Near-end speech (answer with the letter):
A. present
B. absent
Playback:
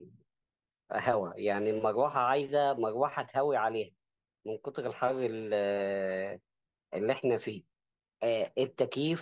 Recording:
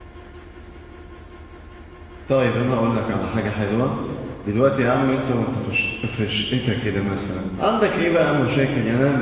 A